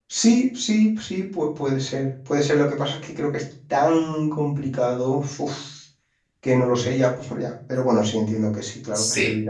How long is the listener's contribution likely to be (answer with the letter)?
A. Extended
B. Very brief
A